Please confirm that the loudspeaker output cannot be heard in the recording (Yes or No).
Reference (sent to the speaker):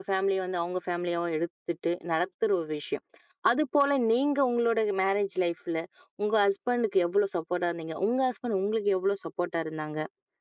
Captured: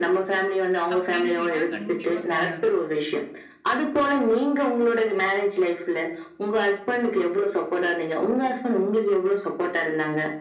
No